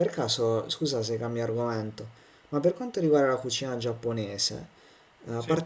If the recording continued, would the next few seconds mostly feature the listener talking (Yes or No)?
No